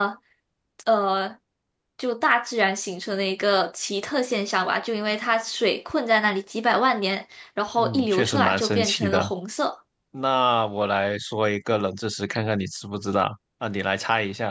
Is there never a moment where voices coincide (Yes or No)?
No